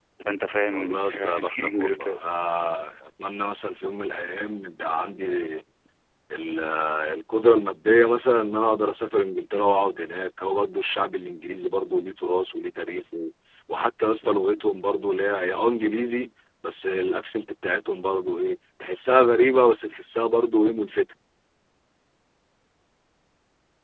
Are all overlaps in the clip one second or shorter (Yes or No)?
No